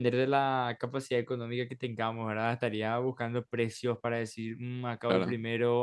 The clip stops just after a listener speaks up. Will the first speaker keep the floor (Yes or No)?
Yes